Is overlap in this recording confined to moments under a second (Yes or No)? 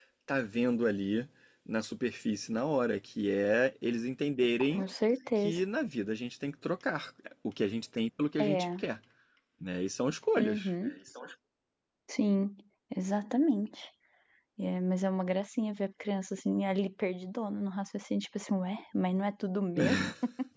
Yes